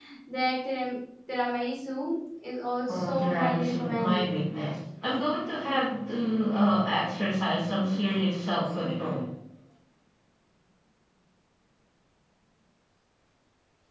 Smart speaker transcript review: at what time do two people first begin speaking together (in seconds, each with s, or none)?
2.9 s